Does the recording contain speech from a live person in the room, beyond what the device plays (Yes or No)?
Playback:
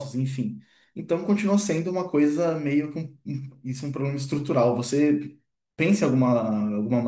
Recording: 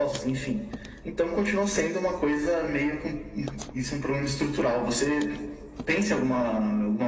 No